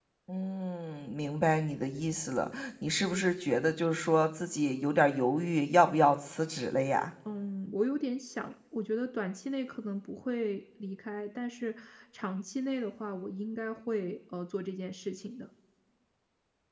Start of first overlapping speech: none

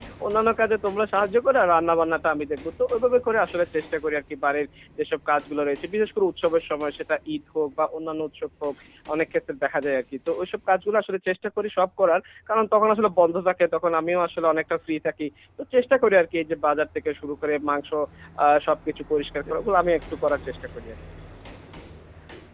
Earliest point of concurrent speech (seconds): none

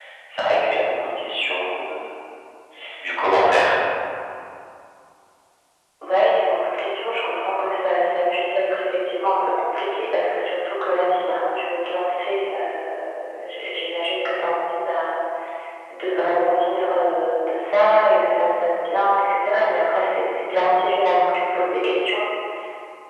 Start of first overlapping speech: none

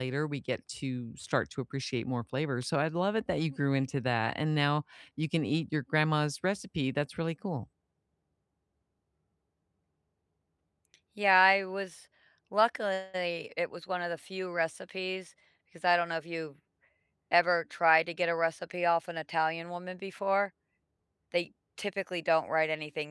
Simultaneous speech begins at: none

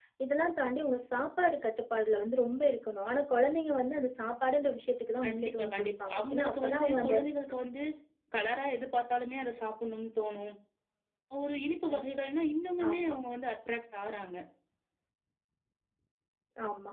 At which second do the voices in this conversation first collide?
5 s

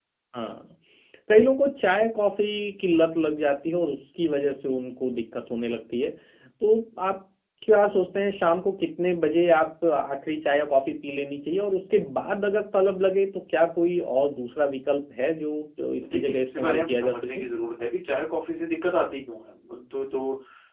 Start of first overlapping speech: 16 s

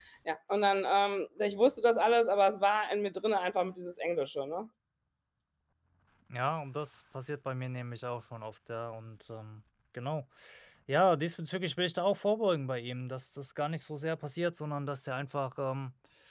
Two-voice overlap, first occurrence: none

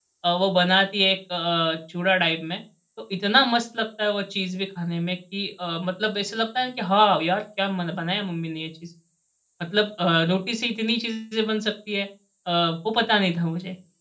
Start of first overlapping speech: none

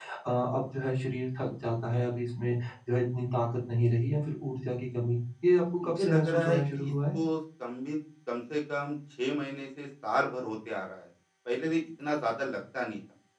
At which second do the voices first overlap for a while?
6 s

